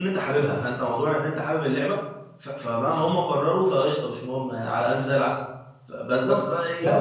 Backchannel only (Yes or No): No